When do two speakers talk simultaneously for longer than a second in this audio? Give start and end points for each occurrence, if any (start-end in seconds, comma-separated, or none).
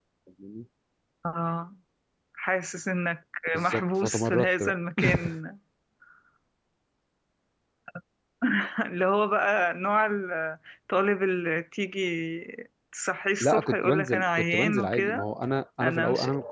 3.5-4.8, 13.4-15.2